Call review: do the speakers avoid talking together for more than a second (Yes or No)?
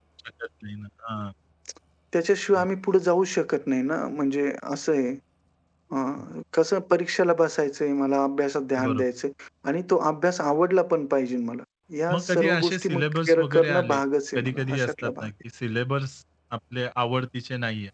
No